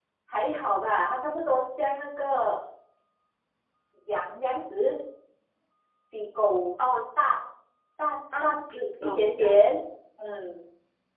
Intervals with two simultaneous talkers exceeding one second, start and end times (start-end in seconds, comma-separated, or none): 8.4-9.7